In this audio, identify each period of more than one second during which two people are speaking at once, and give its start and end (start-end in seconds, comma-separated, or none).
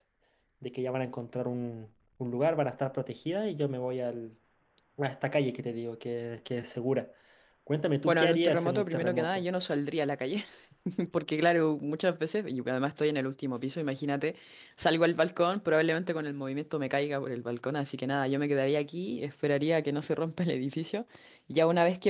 8.1-9.4